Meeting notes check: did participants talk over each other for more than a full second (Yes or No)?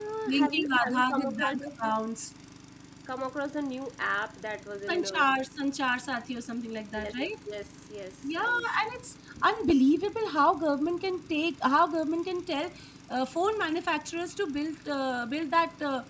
Yes